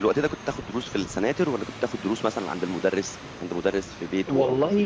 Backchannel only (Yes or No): No